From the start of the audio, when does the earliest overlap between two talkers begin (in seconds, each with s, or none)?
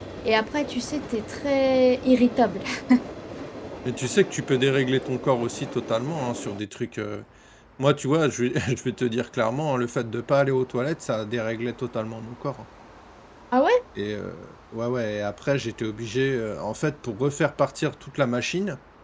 none